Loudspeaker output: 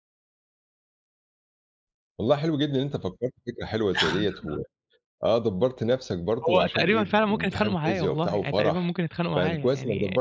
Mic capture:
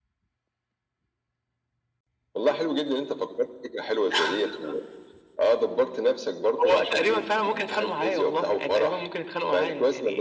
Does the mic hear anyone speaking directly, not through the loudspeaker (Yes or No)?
No